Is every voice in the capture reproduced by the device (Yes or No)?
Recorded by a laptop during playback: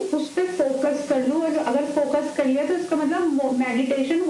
Yes